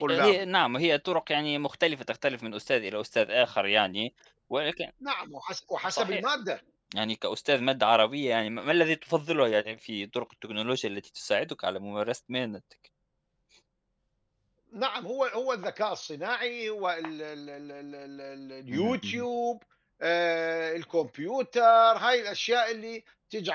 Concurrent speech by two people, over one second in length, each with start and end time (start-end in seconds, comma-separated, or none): none